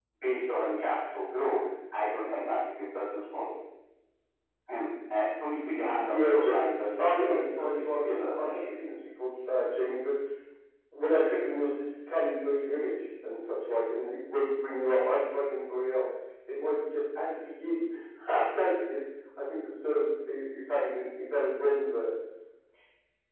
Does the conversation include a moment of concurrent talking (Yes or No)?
Yes